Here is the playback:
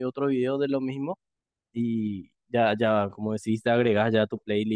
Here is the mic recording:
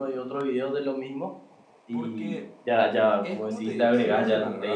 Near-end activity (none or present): present